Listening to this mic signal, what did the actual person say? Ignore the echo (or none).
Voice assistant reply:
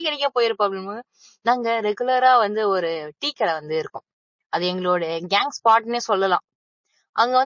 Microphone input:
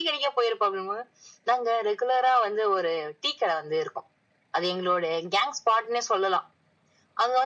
none